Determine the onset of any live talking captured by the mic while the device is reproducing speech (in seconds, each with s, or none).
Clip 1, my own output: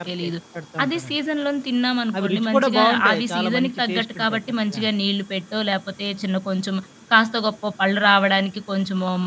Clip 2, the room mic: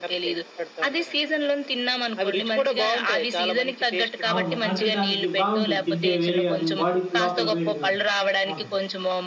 4.3 s